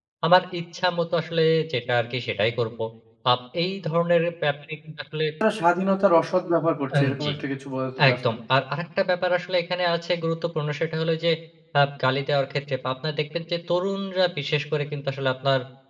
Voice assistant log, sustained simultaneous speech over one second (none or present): none